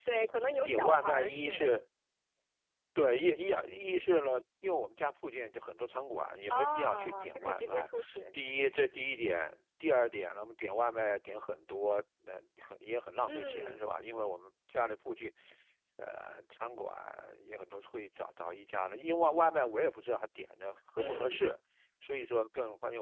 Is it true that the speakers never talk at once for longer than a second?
No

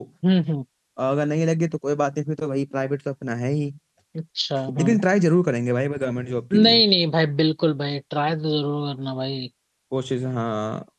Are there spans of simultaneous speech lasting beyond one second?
No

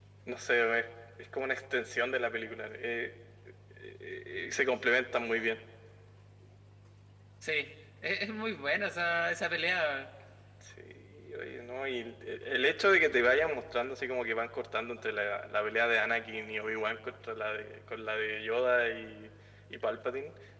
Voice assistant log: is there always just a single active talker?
Yes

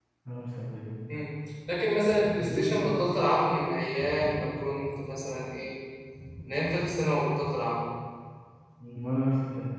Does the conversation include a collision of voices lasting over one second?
No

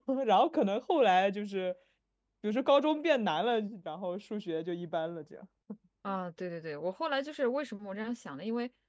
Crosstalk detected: No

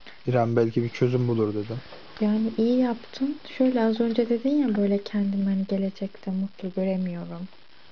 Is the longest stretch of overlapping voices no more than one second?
Yes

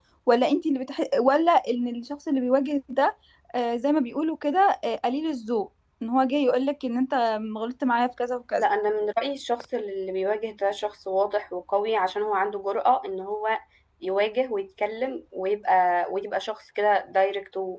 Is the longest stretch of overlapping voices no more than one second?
Yes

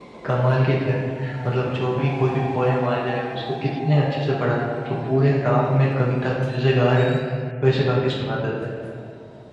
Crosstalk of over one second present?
No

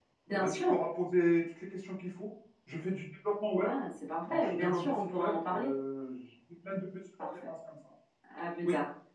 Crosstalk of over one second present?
Yes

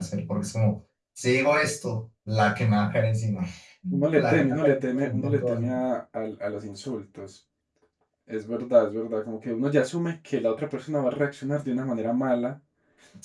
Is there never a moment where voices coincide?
No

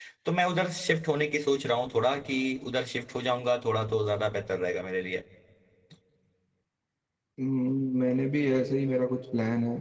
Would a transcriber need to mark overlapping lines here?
No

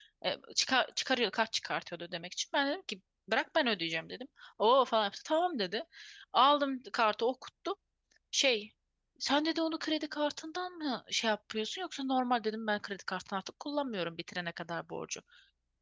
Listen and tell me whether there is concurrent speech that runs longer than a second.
No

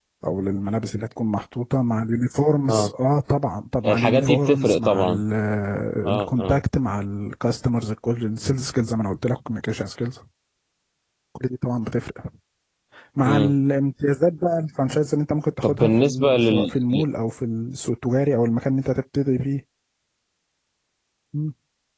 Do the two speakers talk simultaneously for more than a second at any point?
Yes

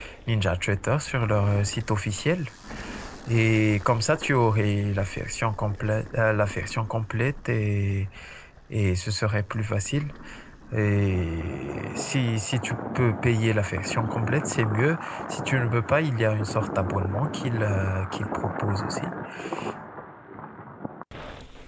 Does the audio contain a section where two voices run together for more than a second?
No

